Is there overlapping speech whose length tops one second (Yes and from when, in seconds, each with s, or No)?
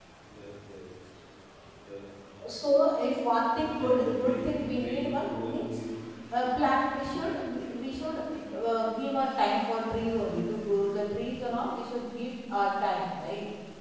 Yes, from 3.6 s